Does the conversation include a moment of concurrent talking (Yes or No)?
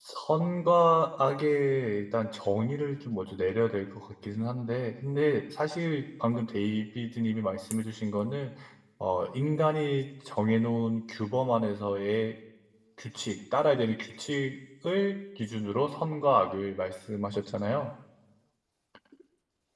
No